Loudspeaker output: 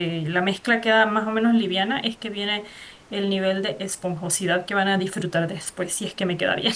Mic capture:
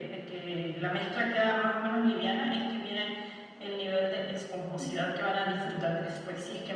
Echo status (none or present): present